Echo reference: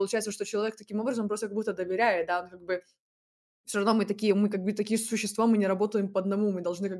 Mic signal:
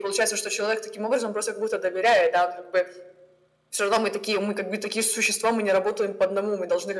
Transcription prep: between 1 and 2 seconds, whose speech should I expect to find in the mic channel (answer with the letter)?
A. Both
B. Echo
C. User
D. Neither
B